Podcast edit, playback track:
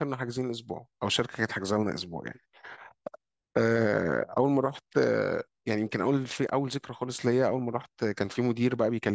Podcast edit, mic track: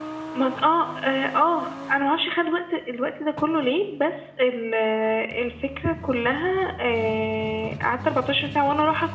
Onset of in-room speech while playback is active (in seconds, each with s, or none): 0.3 s